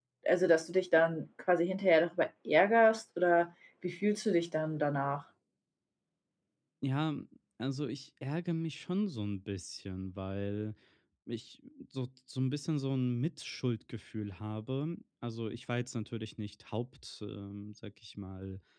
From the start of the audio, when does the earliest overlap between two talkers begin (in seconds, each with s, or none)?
none